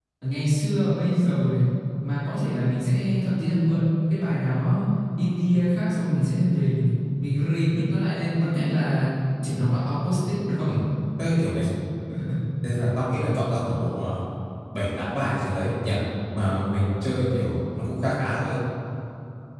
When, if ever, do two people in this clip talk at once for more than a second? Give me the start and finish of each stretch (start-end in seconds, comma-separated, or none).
none